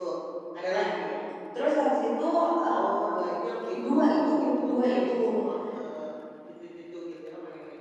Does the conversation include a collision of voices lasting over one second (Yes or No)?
Yes